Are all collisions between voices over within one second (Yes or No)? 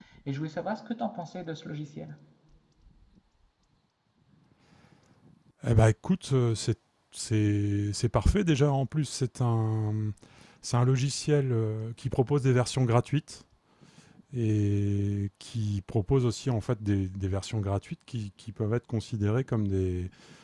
Yes